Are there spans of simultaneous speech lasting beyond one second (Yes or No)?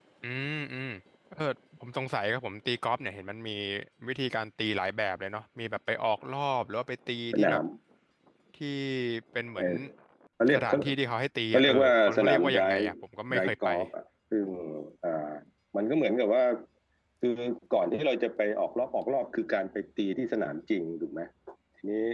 Yes